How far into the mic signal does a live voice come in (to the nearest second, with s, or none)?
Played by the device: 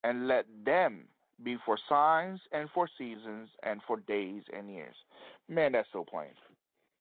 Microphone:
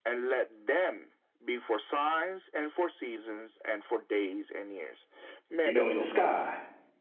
6 s